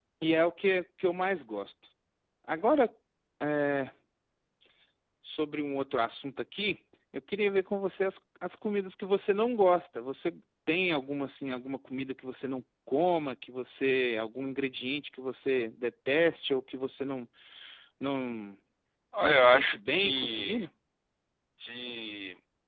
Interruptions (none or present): present